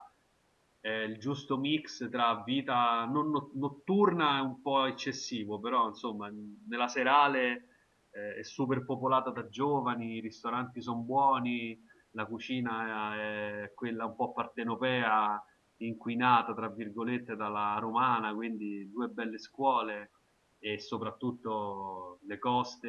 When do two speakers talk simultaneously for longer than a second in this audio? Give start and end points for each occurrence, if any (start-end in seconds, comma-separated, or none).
none